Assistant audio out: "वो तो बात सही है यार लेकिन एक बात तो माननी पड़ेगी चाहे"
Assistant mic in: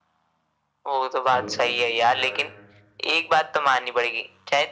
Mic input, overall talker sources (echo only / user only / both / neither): both